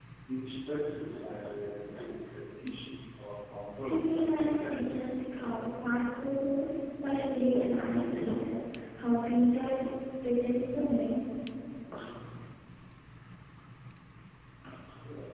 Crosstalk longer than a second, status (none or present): present